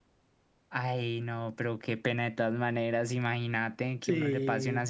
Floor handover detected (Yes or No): No